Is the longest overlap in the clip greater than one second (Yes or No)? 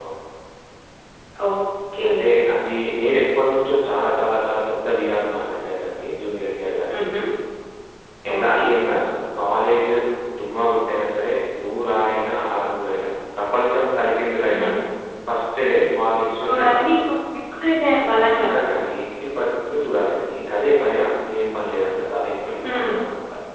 No